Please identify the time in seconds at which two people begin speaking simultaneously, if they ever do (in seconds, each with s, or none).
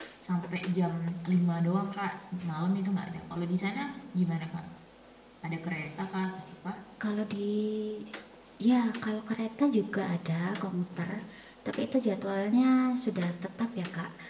none